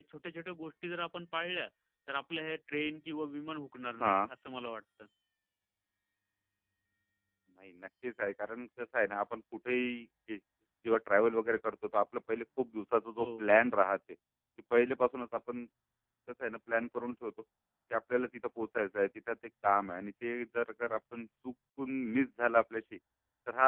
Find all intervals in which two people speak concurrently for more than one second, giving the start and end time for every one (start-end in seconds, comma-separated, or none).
none